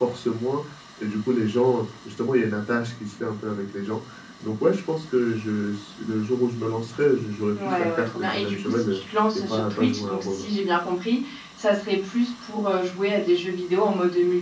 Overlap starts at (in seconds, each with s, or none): 7.5 s